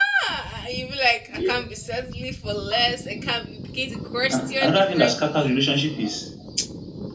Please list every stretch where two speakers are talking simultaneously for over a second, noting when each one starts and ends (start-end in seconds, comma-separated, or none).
4.3-5.6